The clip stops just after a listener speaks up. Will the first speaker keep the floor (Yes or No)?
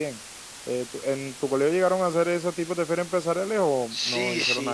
No